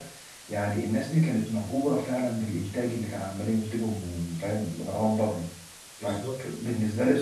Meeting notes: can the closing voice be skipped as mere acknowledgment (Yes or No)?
Yes